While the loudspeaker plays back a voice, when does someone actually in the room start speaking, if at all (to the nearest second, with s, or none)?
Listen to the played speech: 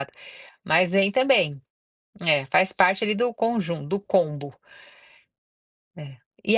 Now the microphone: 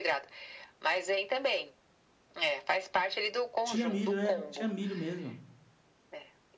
4 s